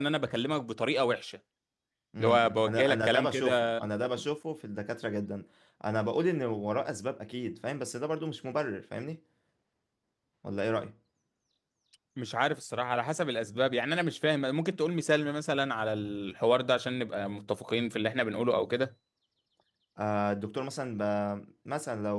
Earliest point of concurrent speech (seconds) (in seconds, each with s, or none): 2.2 s